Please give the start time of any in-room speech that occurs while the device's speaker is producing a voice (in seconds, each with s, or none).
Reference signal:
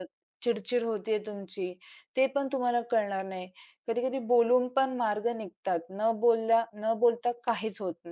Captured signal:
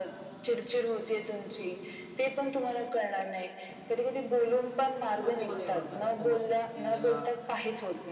5.2 s